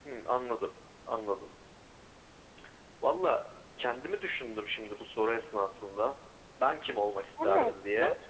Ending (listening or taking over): taking over